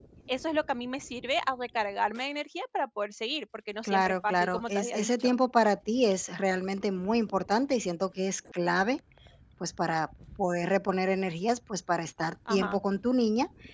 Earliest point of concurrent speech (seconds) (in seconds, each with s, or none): 3.8 s